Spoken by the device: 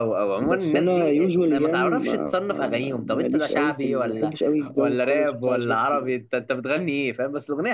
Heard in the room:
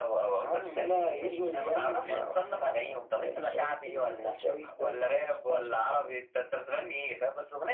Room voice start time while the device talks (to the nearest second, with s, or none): none